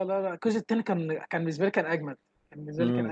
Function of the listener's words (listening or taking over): taking over